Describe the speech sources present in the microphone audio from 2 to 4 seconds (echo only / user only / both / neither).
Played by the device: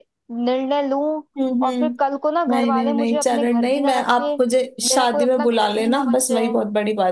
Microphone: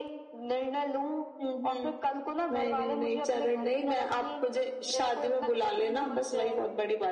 echo only